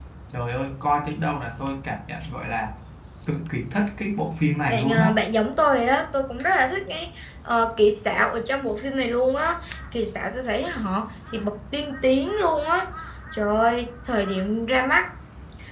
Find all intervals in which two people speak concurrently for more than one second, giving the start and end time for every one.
none

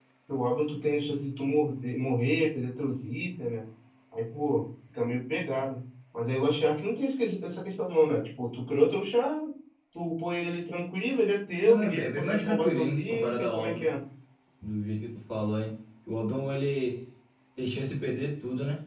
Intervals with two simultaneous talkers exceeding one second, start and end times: 11.7-13.8

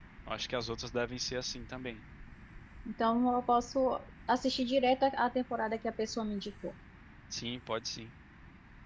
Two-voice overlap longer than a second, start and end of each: none

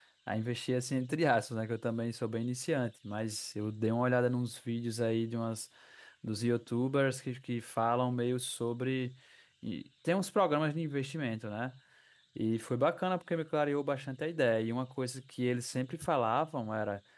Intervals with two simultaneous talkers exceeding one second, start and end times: none

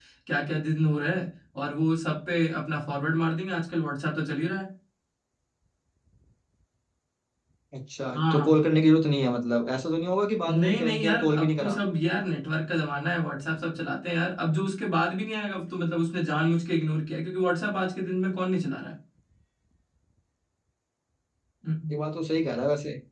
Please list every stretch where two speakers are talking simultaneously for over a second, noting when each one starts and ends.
10.5-11.8

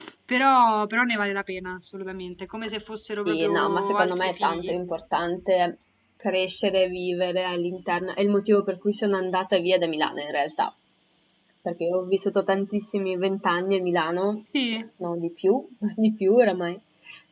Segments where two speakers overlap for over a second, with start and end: 3.2-4.7

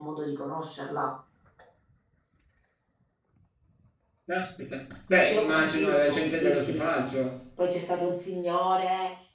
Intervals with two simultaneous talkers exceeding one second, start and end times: 5.3-6.9

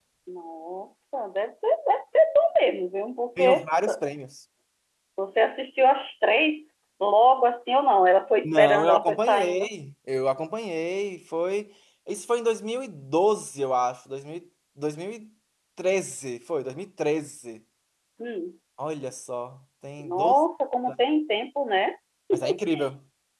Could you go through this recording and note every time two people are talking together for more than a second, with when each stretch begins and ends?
8.4-9.7

